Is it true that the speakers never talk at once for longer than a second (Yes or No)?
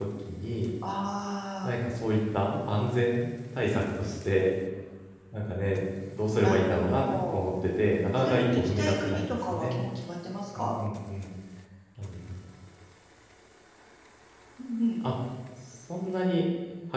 No